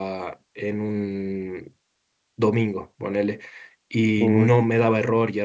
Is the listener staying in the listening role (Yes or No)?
Yes